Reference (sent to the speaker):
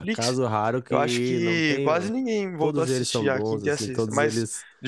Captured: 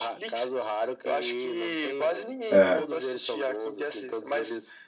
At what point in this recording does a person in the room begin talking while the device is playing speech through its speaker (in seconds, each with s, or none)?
2.5 s